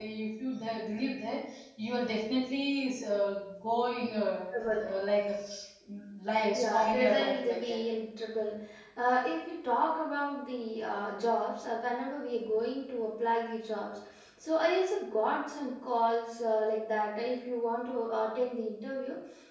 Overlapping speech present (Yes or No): Yes